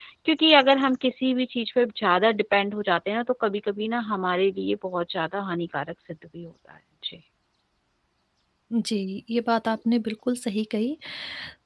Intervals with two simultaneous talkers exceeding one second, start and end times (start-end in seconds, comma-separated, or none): none